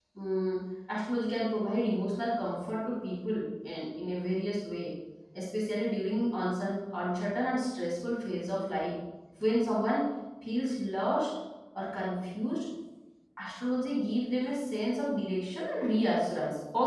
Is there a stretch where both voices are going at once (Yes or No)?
No